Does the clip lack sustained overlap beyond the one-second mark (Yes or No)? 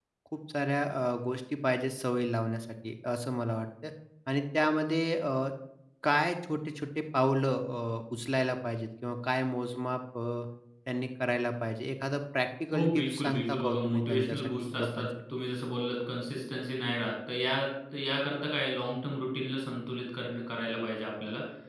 No